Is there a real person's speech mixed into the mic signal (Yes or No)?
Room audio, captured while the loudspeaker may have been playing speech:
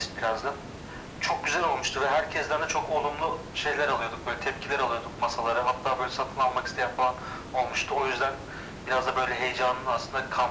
No